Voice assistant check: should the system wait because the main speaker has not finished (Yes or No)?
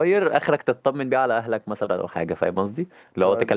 Yes